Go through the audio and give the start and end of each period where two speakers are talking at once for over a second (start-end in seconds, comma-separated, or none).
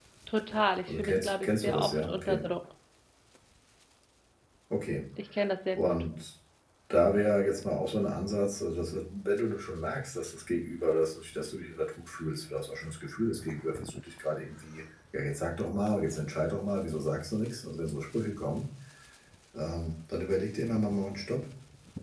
0.9-2.4